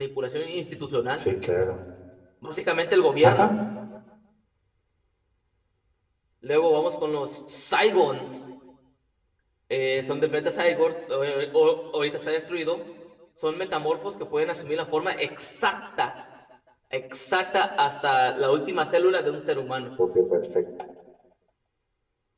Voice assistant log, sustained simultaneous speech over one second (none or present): none